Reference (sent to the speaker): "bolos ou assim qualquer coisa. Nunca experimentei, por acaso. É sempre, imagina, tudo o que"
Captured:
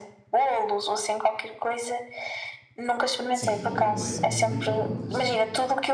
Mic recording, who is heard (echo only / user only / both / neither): both